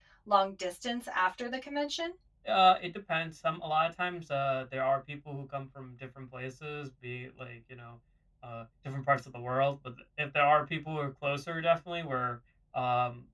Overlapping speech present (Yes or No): No